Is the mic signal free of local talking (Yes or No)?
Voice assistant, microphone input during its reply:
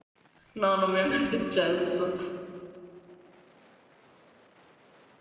No